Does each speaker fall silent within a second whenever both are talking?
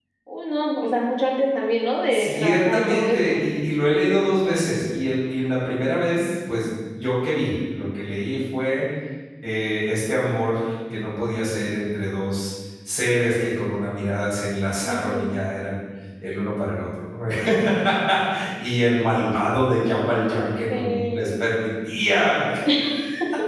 No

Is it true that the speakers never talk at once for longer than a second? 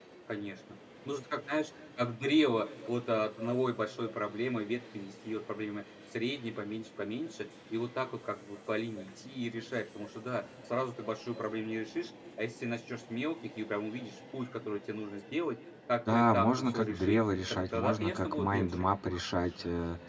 No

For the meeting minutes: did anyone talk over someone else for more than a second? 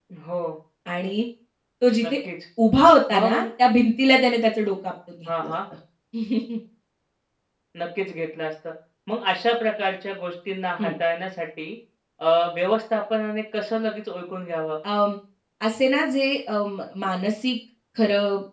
No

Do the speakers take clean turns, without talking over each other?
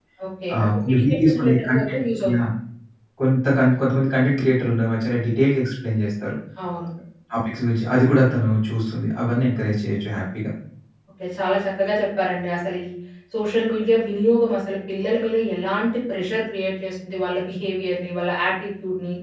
No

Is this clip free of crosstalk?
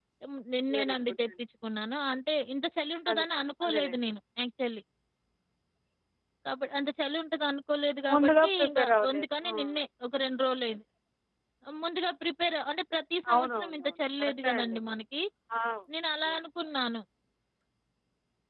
No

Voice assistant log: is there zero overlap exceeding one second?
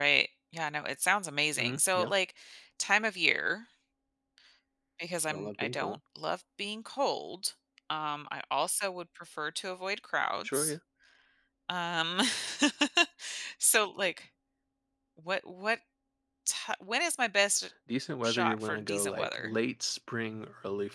No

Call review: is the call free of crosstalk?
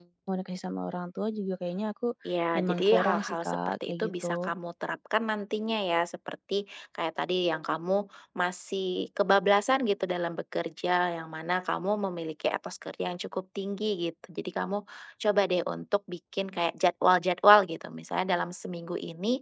No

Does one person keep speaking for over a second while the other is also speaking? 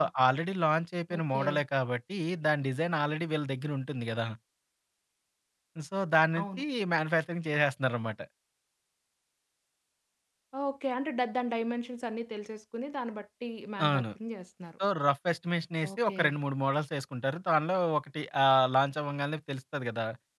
No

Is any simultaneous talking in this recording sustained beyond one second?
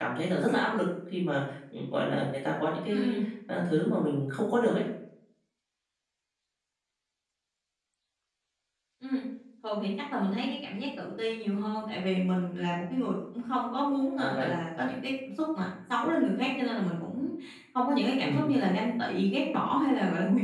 No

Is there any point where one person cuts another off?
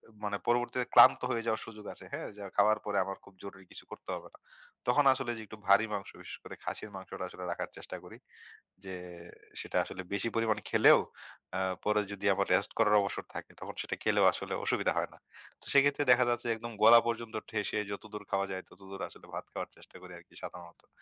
No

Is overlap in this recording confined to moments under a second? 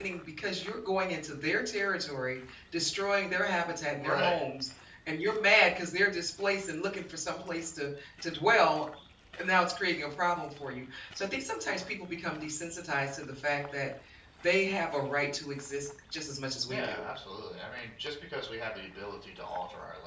Yes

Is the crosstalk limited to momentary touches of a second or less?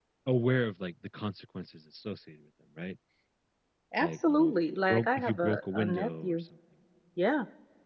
No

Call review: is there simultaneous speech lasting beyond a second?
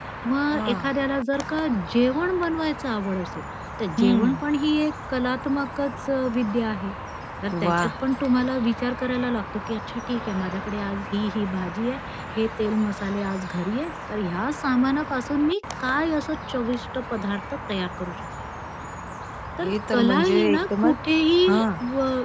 Yes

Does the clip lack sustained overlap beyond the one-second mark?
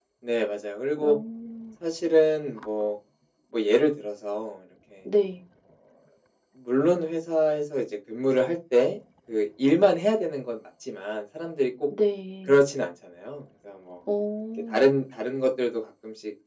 Yes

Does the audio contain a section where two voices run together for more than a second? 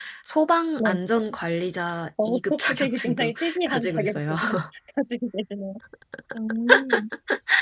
Yes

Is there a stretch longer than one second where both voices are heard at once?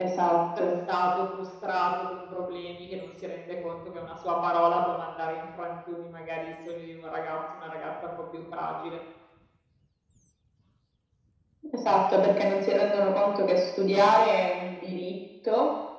No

